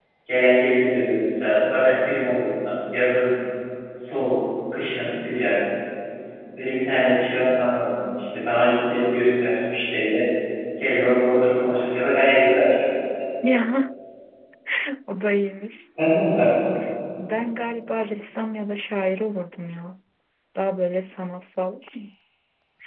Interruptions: none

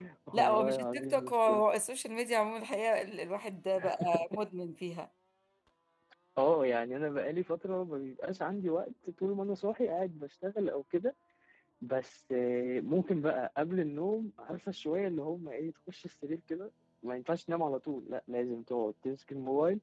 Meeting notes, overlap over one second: present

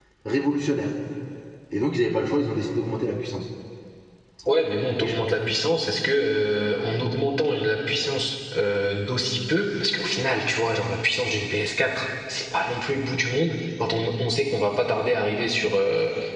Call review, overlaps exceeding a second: none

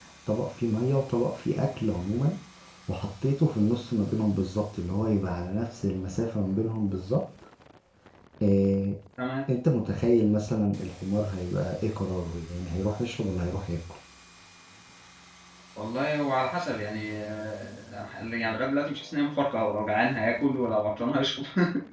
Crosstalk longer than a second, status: none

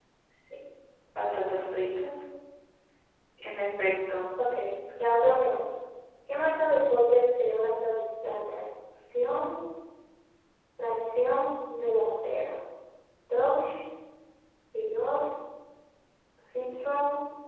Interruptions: none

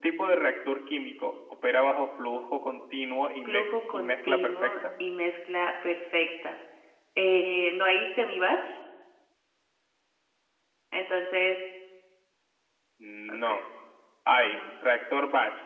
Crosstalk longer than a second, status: present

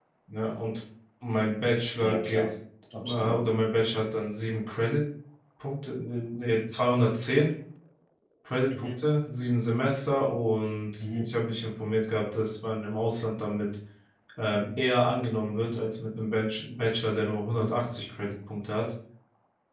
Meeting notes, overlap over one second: none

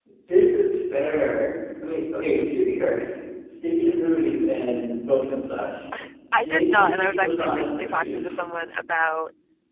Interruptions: present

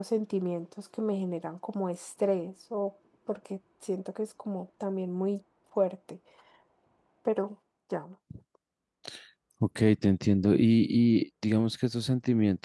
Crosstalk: none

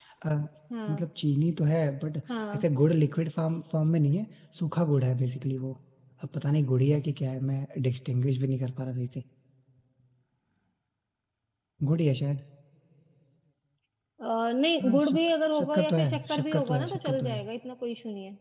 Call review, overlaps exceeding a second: present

